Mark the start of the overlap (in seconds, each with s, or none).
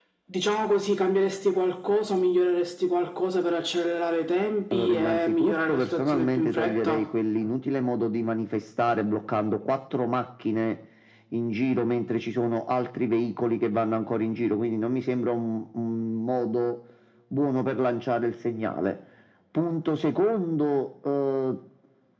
4.7 s